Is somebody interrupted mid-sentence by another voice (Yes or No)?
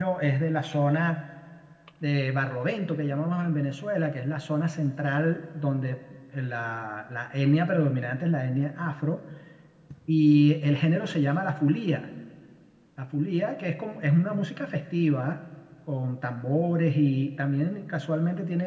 No